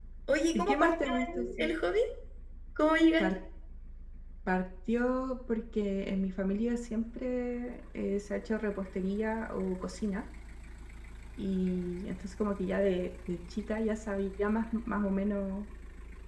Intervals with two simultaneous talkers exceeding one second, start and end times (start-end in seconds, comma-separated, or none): 0.5-1.7